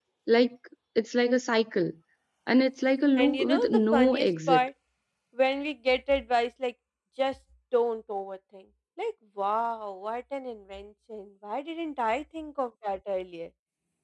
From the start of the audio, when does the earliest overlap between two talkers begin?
3.1 s

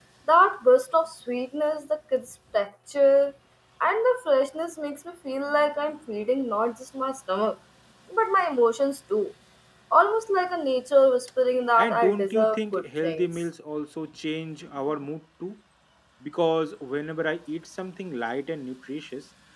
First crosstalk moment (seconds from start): 11.8 s

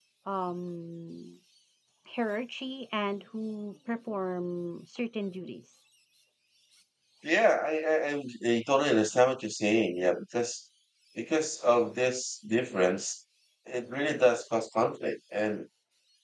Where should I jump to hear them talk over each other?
none

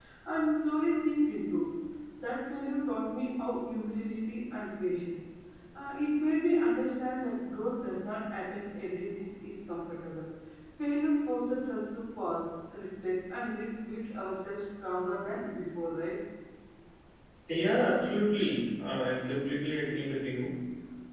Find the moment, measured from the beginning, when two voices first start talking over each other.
none

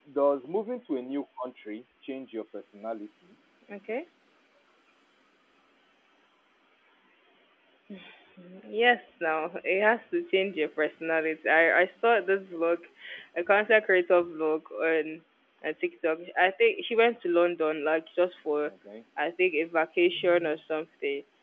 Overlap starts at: none

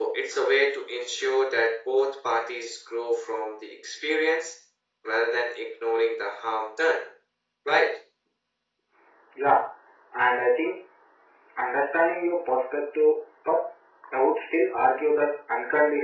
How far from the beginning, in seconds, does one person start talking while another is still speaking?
none

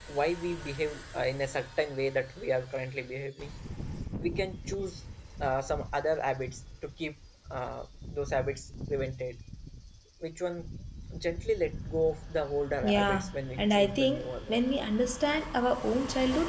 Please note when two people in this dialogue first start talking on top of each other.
12.8 s

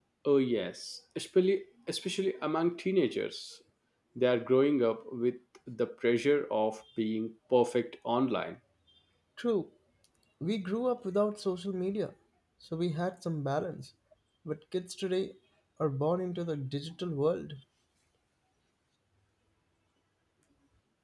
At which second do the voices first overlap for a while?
none

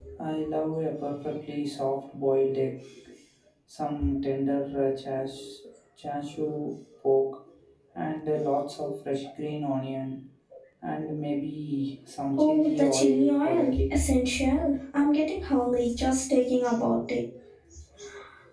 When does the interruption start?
12.3 s

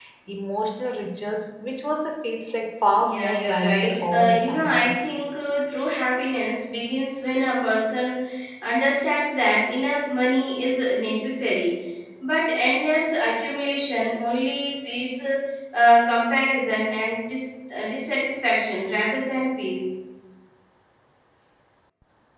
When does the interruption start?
3.0 s

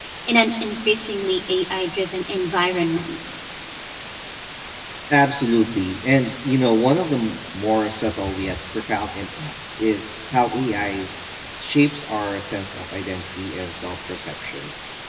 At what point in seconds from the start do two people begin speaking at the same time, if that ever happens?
none

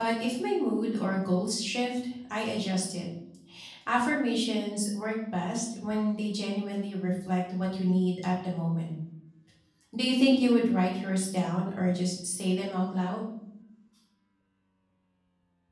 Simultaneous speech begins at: none

